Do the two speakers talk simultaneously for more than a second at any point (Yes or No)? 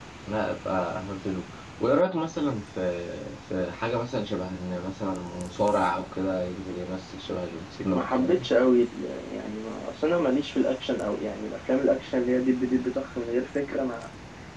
No